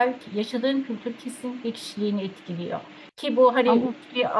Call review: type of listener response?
listening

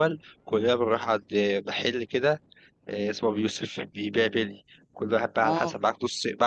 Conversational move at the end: listening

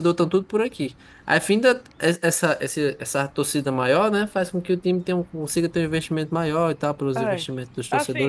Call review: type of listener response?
taking over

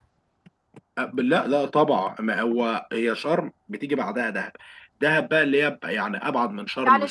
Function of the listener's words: taking over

